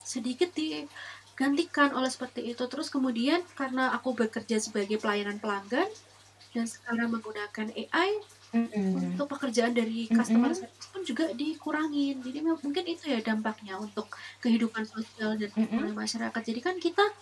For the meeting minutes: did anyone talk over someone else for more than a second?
No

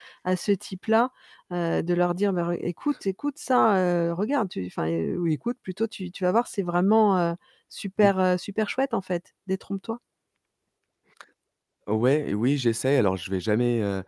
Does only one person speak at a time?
Yes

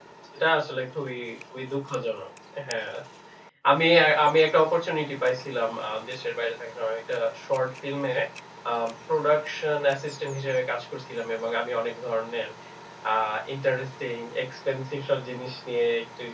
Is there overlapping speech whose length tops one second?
No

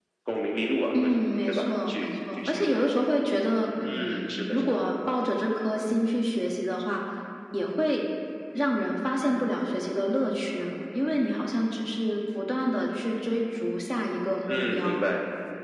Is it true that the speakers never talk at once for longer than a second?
No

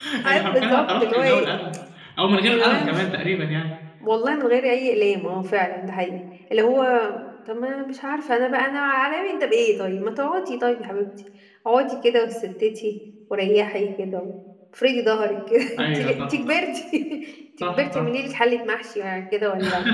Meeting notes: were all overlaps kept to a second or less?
No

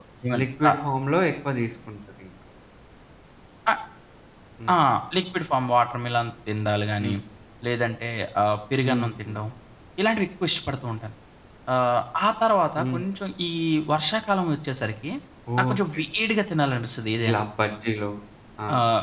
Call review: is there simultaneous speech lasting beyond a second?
No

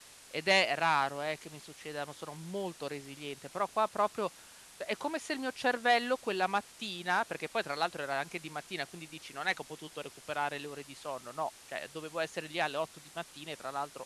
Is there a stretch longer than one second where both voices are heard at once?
No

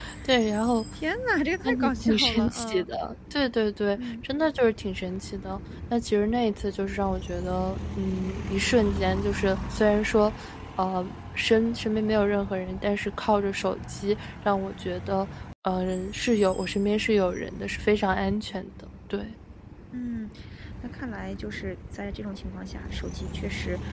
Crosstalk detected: Yes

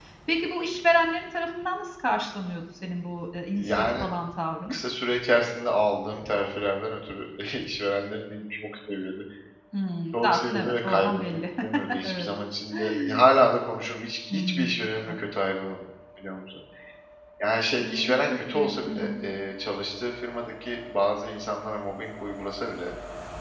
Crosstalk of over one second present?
Yes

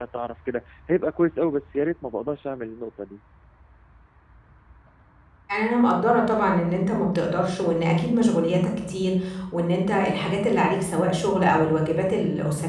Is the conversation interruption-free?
Yes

